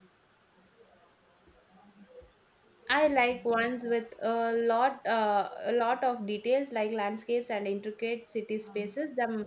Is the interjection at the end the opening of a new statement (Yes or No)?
No